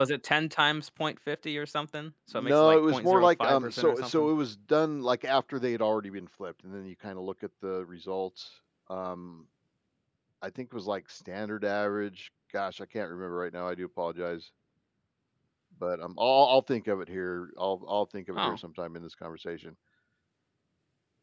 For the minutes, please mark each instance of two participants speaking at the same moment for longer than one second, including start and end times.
2.3-4.3

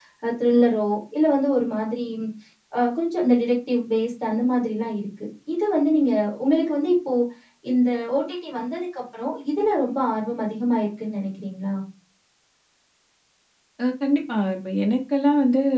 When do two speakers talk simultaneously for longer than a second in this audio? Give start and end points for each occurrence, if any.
none

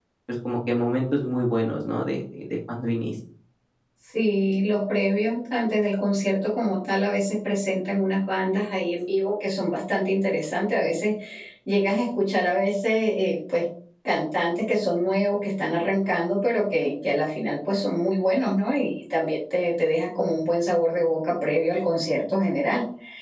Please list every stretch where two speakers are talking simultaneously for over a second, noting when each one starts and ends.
none

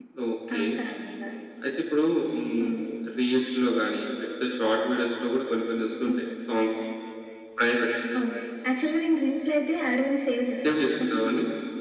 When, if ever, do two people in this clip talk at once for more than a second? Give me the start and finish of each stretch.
none

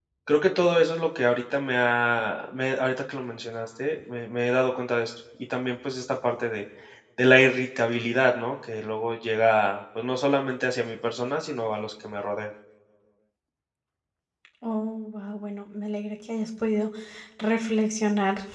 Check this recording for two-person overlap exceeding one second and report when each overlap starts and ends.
none

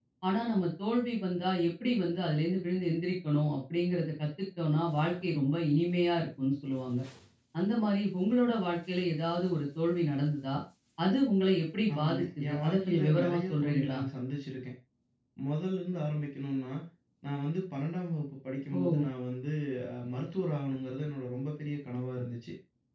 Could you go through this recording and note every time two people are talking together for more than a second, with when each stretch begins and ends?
11.9-14.0

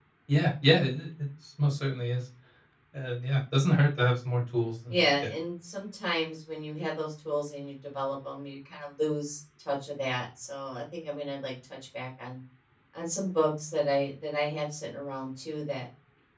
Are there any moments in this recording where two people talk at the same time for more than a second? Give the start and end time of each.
none

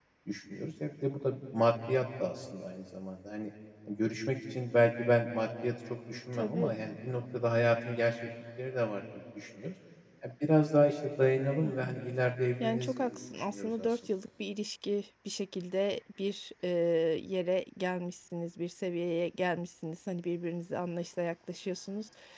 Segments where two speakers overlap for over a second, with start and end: 12.6-14.0

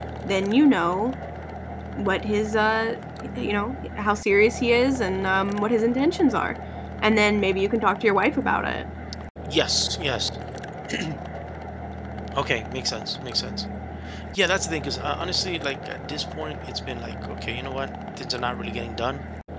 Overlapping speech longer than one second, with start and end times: none

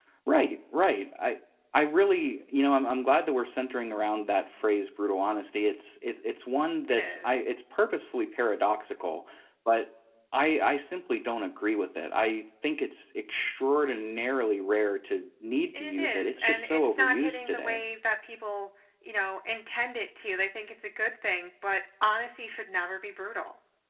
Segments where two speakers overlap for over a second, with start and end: 15.7-17.8

